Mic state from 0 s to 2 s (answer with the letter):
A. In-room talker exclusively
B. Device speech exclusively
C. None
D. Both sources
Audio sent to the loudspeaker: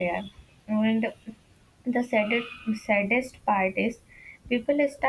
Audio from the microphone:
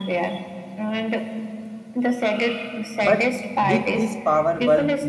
B